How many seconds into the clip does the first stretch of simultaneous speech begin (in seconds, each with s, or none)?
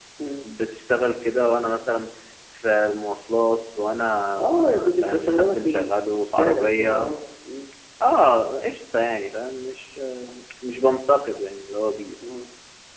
4.3 s